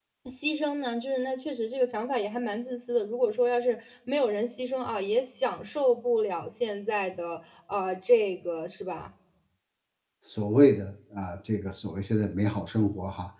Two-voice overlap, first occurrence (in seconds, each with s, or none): none